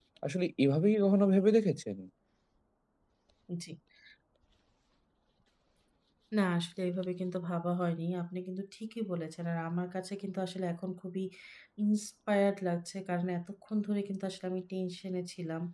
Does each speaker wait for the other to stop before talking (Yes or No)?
Yes